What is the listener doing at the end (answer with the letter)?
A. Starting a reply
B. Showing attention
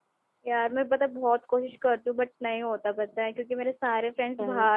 B